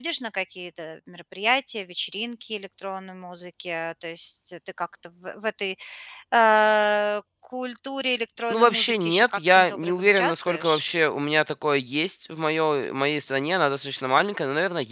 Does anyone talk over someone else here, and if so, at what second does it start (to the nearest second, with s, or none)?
9 s